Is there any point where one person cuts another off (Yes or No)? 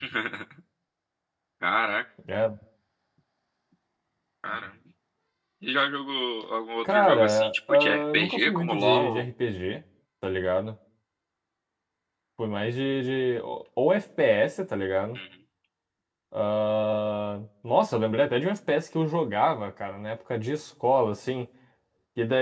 Yes